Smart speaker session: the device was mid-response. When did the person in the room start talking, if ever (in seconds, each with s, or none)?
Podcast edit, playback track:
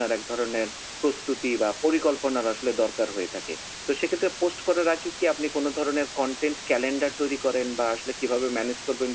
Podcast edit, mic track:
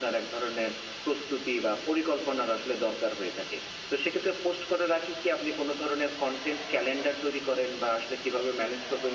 none